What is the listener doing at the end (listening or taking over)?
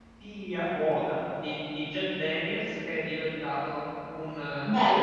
taking over